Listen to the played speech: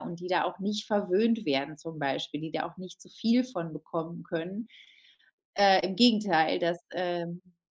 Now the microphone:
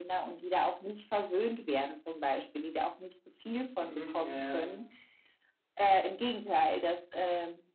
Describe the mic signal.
both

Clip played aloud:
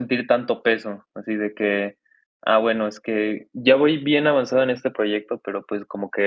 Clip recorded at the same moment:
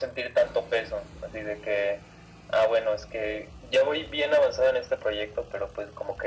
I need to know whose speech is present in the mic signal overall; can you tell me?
echo only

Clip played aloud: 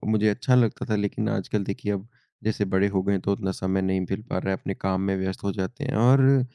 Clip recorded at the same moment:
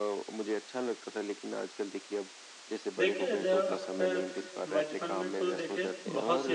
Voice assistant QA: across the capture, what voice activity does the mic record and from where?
both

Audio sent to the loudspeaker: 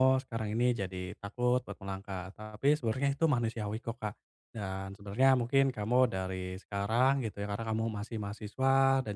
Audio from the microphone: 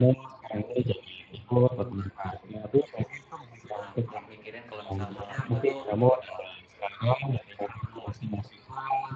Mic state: both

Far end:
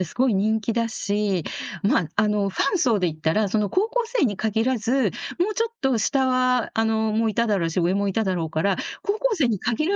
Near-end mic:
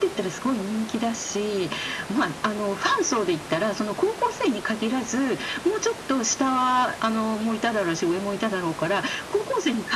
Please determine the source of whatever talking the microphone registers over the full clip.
echo only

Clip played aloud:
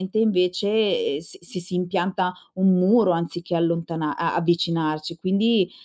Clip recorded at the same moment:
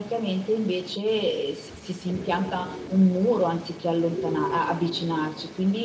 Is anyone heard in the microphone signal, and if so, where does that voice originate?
echo only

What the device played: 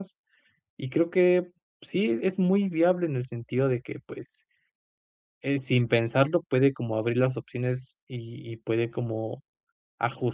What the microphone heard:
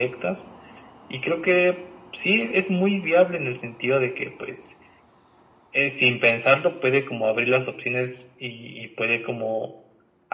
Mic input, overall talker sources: echo only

